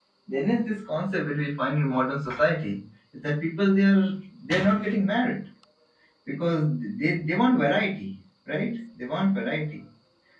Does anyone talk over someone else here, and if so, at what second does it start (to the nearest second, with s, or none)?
none